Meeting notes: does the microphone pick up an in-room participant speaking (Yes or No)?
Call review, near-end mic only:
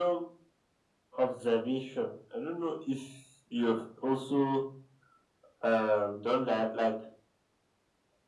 No